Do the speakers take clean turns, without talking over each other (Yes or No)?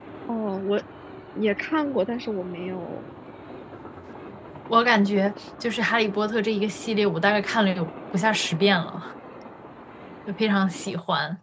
Yes